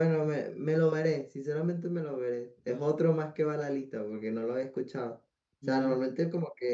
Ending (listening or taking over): listening